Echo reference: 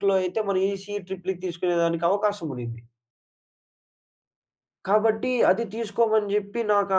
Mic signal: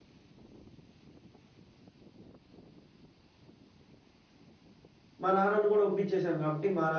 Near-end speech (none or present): present